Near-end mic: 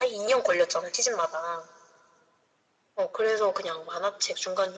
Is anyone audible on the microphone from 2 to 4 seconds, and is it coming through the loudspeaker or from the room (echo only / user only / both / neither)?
echo only